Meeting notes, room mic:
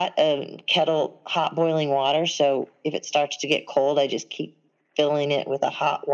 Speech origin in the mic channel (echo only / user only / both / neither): echo only